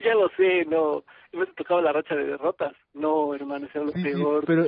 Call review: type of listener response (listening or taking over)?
taking over